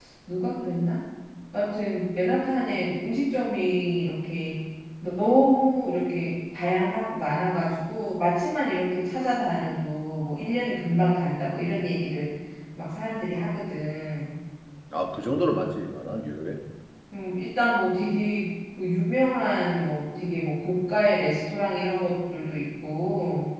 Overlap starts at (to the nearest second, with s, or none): none